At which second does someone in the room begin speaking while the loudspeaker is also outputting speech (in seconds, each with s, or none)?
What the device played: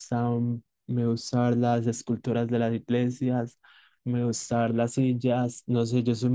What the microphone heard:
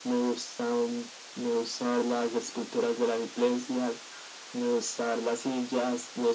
none